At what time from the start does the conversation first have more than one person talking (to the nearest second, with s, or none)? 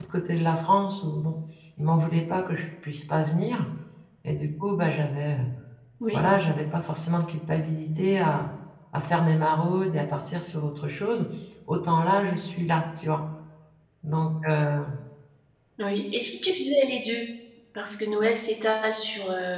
none